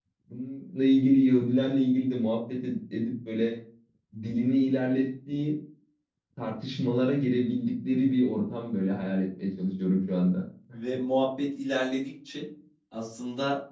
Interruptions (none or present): none